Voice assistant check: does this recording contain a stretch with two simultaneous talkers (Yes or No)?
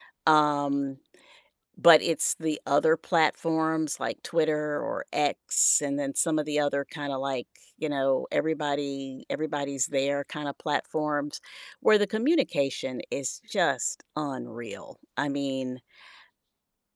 No